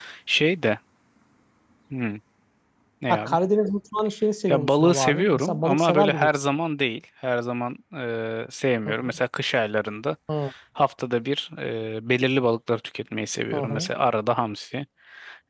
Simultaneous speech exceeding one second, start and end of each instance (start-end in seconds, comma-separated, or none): 4.5-6.3